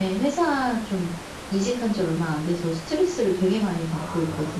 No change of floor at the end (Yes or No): No